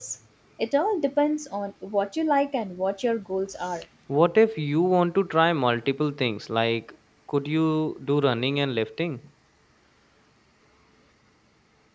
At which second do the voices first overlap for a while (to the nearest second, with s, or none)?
none